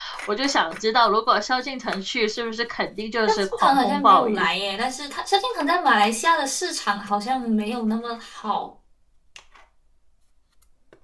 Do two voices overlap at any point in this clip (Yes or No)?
Yes